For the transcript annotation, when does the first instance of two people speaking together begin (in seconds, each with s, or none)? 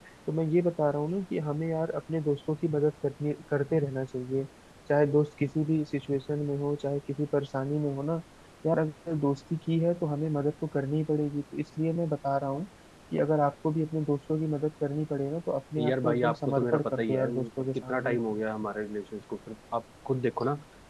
15.8 s